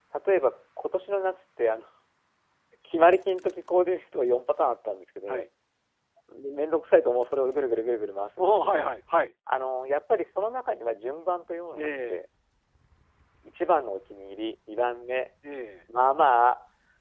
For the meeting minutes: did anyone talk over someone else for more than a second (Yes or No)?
No